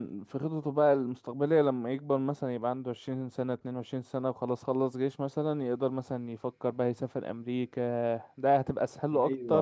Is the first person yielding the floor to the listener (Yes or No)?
Yes